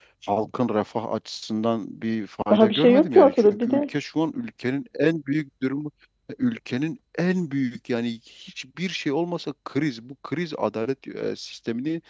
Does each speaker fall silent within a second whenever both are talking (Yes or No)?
No